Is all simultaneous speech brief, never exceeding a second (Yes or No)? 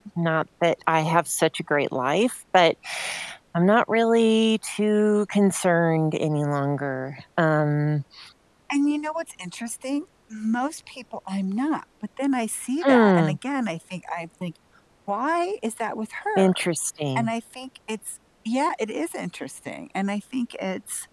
Yes